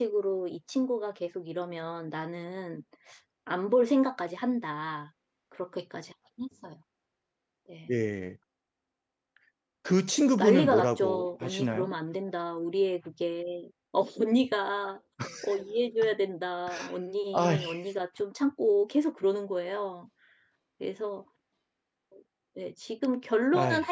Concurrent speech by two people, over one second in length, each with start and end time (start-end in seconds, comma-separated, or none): 10.4-11.9